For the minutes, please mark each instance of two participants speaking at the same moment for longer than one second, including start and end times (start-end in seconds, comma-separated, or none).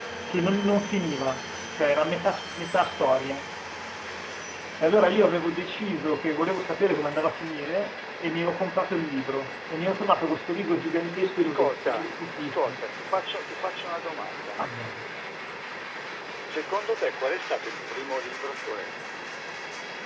11.3-12.8